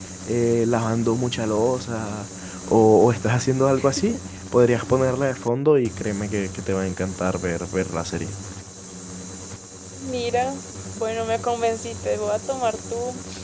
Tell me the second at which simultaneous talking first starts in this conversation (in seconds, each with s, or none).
none